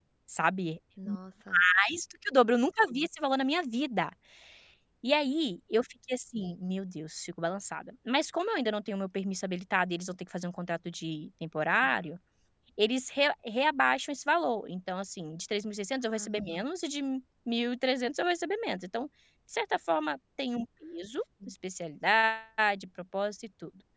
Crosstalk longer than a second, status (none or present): none